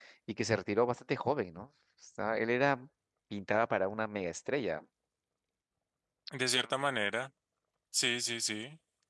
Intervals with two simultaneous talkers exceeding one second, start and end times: none

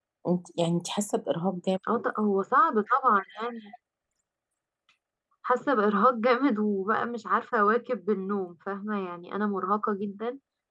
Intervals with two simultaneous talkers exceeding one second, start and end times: none

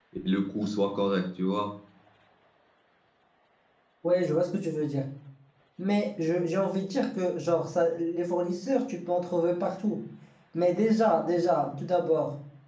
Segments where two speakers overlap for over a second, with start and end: none

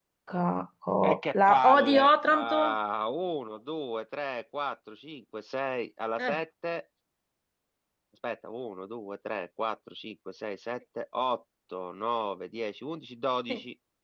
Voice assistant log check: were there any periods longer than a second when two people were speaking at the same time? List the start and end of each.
1.0-2.6

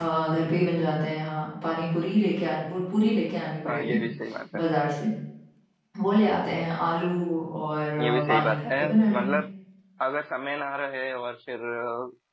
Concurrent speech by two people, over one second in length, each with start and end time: 8.0-9.4

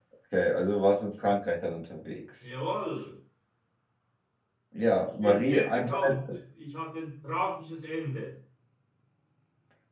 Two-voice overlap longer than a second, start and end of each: 5.0-6.3

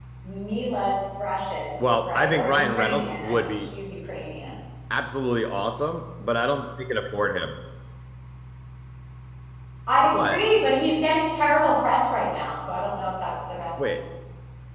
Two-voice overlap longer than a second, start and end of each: 2.0-3.7

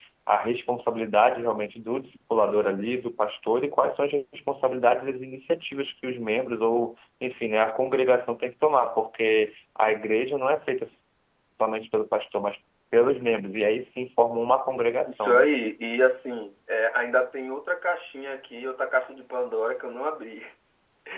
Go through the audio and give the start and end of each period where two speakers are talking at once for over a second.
none

